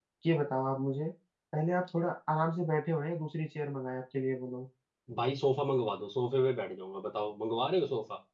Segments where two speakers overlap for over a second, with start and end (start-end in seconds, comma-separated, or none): none